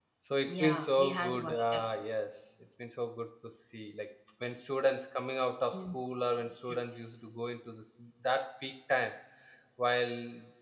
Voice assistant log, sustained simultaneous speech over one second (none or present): present